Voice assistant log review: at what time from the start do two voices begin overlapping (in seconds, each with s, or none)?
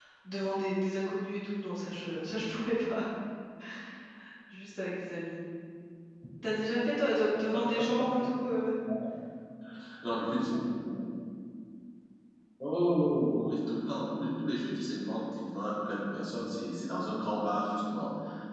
none